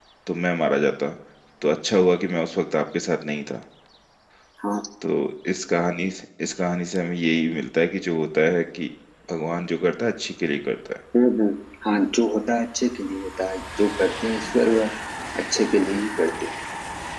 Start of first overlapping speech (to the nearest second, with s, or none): none